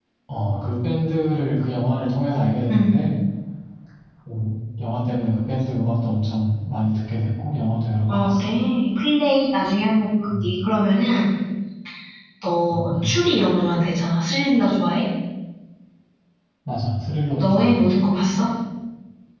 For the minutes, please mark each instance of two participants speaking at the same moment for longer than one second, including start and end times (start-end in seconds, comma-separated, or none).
none